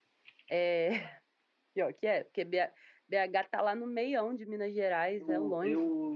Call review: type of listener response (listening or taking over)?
taking over